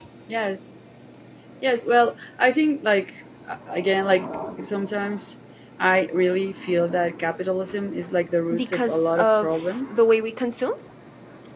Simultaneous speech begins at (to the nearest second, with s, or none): 9 s